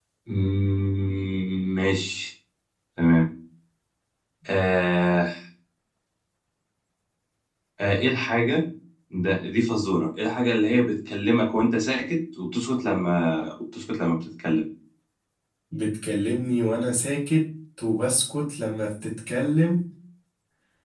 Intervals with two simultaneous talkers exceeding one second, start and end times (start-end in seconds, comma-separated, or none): none